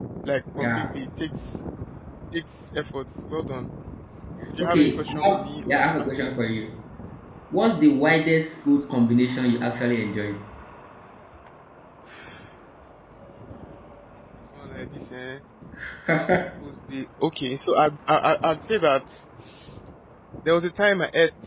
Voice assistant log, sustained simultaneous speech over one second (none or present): present